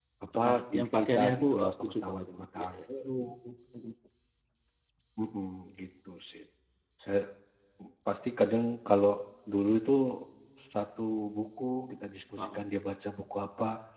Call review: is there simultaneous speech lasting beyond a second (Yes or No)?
Yes